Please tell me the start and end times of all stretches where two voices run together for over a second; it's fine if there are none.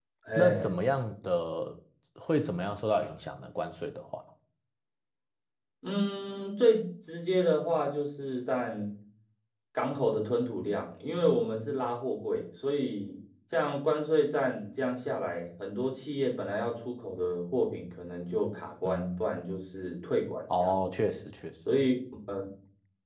none

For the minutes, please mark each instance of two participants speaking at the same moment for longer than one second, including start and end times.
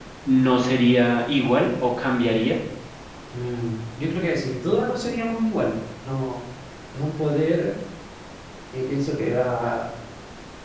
none

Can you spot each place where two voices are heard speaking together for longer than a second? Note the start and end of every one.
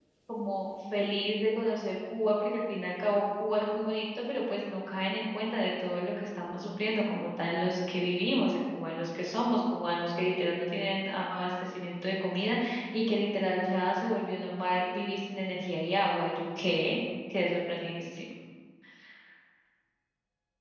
none

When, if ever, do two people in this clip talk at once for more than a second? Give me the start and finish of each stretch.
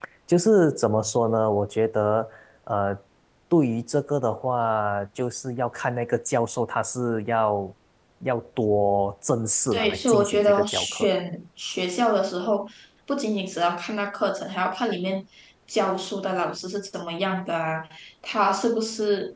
9.7-11.1

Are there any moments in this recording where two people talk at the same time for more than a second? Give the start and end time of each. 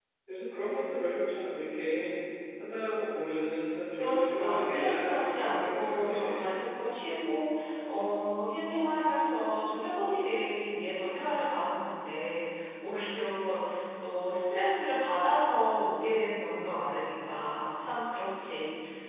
4.0-6.4

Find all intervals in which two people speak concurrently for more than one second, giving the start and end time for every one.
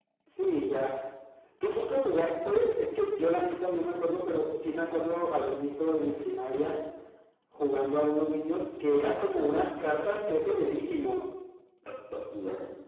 9.0-10.8

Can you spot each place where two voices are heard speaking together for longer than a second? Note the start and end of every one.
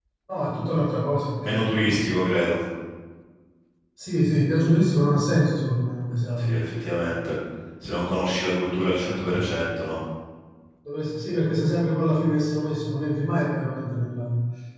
none

